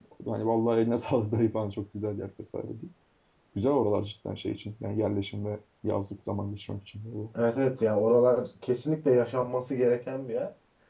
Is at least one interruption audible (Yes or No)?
No